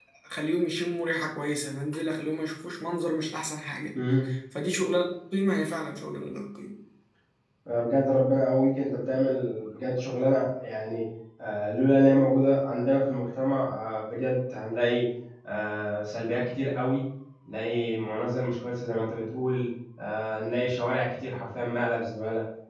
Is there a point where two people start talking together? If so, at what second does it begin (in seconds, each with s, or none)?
none